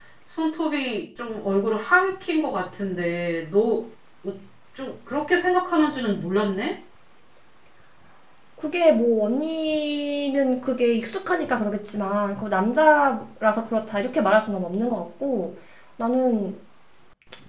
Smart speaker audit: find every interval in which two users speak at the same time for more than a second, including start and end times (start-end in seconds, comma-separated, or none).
none